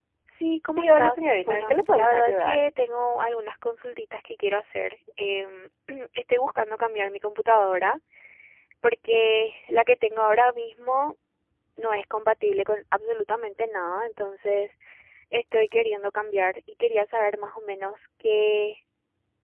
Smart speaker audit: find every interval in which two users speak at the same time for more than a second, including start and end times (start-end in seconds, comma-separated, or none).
0.6-2.6